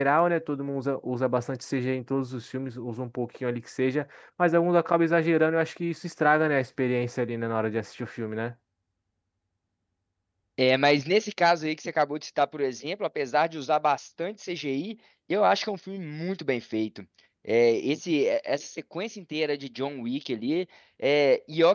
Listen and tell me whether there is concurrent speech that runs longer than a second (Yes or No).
No